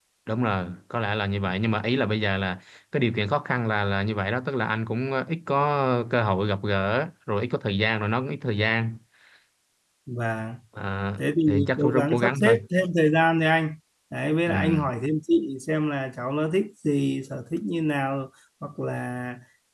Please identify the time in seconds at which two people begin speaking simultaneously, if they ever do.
11 s

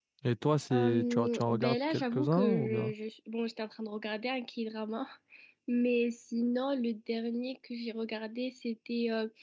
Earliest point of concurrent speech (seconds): 1 s

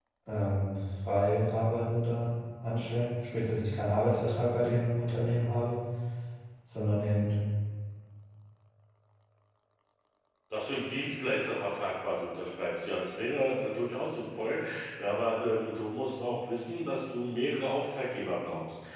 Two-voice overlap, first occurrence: none

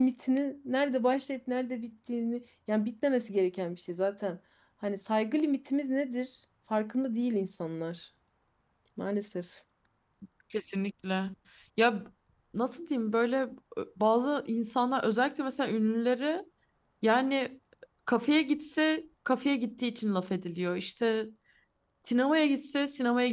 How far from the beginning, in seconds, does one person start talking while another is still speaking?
none

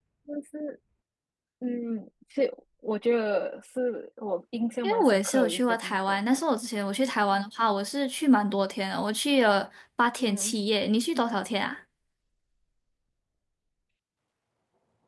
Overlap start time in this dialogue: 5 s

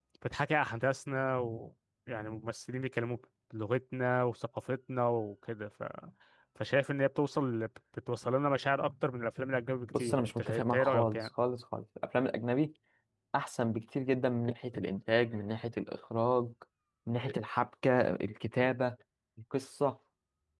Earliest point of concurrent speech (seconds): 10 s

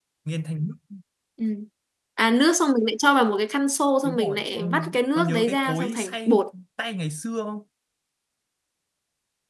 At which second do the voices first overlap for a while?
4 s

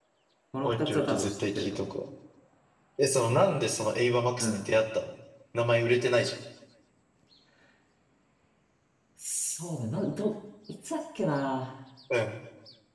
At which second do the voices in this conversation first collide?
1 s

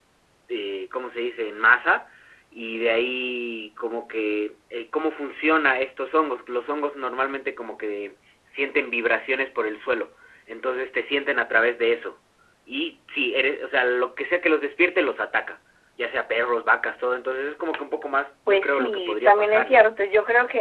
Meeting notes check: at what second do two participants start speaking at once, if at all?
18 s

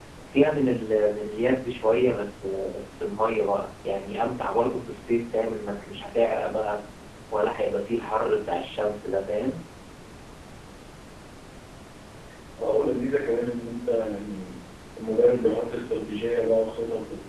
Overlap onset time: none

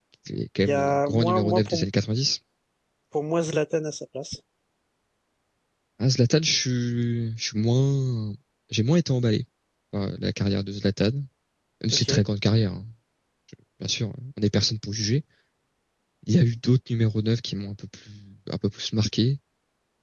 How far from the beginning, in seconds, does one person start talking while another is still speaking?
1 s

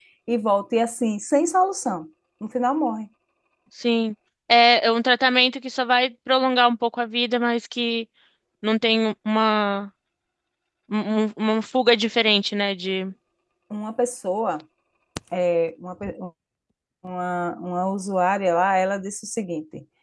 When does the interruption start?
none

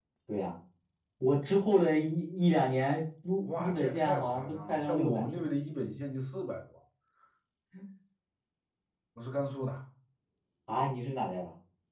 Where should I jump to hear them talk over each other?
3 s

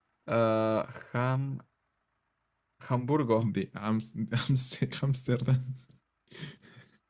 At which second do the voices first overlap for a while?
none

